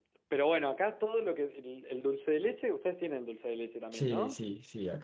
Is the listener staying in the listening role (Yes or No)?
No